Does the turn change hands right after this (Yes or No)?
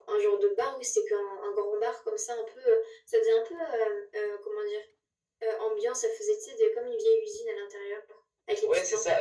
Yes